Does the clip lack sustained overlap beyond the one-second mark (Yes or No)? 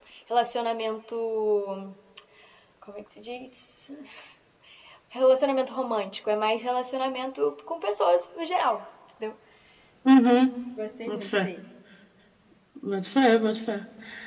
Yes